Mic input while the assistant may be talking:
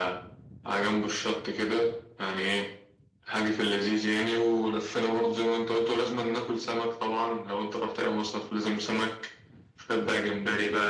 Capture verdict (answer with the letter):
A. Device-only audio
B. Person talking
A